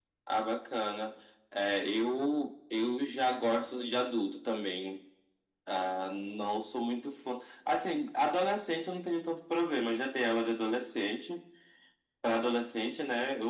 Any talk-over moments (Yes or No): No